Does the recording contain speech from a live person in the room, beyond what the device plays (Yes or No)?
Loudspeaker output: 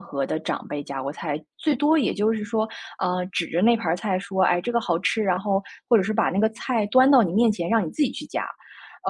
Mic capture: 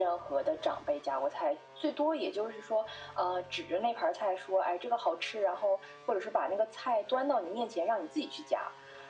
No